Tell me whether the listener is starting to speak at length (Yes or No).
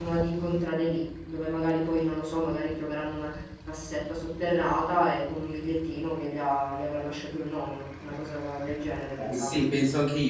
Yes